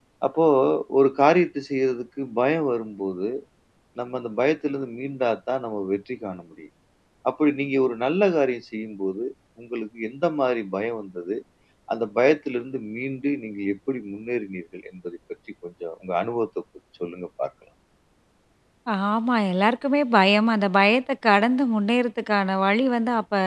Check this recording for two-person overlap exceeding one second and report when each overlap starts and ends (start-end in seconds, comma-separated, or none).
none